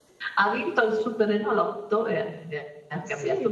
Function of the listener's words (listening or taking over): taking over